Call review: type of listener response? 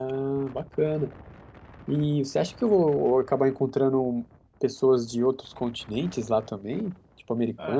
taking over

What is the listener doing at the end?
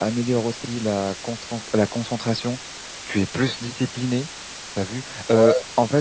listening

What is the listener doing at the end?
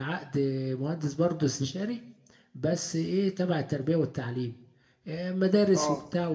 listening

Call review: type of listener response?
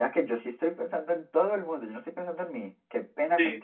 taking over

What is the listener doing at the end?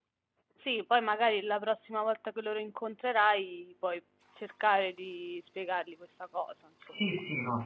taking over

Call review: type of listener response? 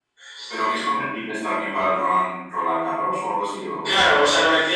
taking over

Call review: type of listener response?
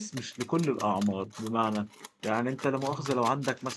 listening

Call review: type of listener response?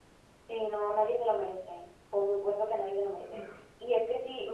listening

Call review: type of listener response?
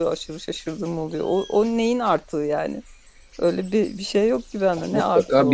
taking over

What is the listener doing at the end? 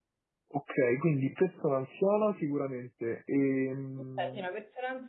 taking over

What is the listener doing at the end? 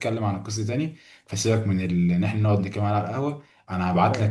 listening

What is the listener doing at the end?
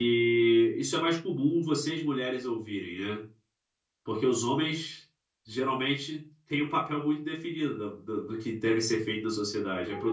taking over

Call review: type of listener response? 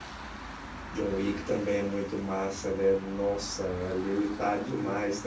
listening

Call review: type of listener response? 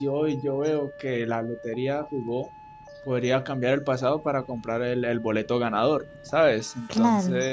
listening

